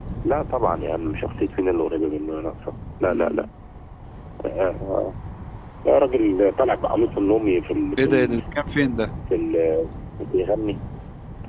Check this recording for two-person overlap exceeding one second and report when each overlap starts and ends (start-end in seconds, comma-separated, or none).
none